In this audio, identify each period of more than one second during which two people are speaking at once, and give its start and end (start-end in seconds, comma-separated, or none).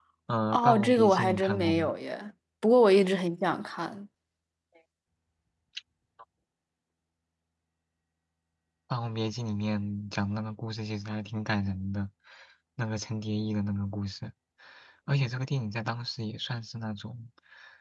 0.5-1.9